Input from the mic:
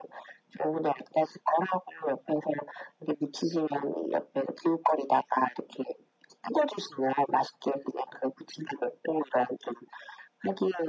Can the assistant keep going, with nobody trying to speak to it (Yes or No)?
Yes